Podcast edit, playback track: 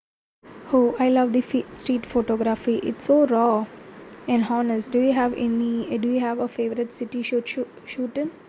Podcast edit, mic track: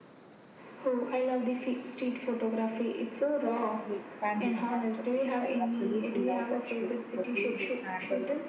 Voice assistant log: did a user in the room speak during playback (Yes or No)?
Yes